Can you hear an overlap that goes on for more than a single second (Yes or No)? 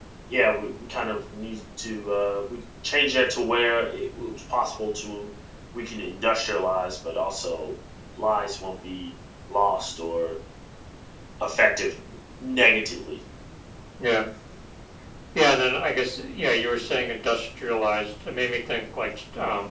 No